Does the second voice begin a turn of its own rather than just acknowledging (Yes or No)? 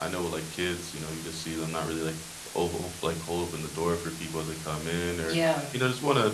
No